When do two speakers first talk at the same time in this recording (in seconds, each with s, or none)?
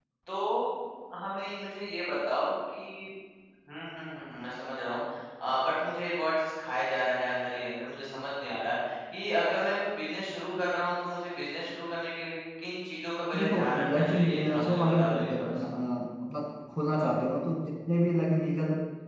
13.3 s